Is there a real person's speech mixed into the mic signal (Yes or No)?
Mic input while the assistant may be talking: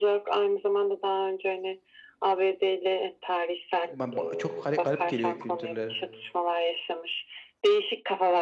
Yes